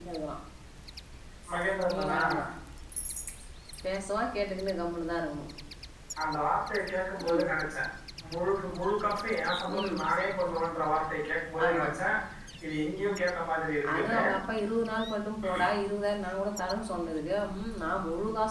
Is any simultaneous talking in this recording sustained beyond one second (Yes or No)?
No